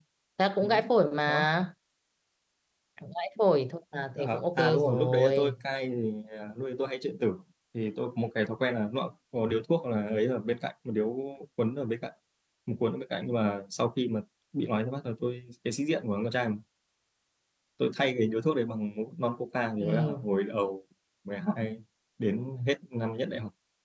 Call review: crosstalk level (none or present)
present